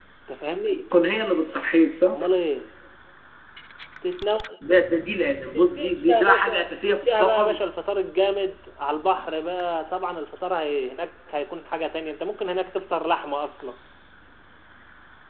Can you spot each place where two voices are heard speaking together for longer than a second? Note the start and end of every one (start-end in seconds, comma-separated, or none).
5.5-7.6